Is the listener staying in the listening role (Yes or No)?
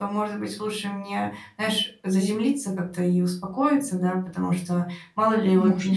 Yes